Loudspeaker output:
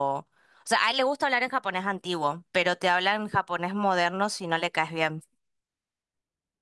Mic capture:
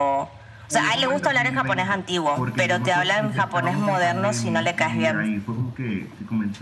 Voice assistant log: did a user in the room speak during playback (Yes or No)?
Yes